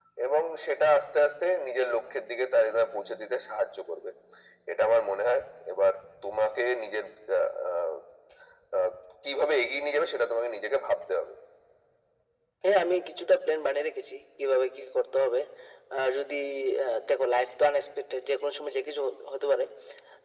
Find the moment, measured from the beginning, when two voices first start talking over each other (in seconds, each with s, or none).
none